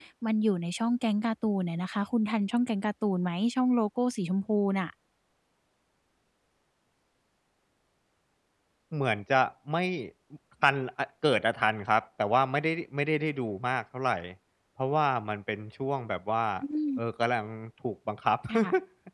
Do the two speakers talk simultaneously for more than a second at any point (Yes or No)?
No